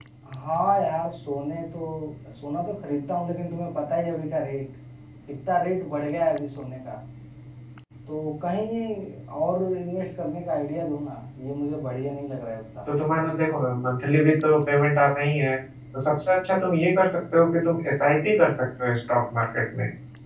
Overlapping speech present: No

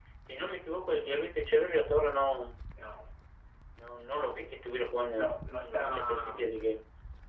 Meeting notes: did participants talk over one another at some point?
Yes, from 5.1 s

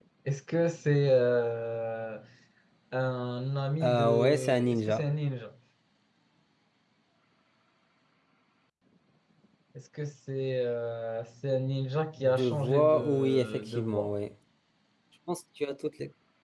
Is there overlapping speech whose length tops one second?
Yes, from 3.8 s

